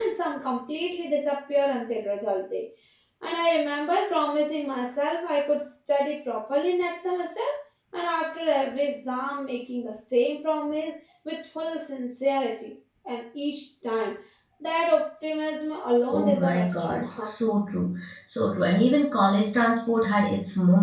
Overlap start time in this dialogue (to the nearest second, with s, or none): 16 s